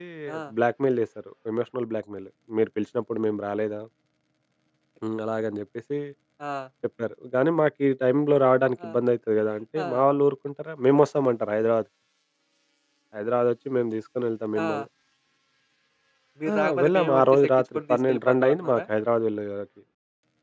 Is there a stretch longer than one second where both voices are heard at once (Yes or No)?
Yes